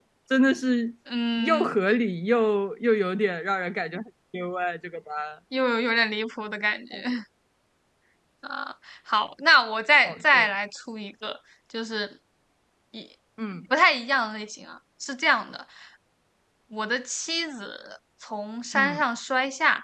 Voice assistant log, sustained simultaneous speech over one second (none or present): none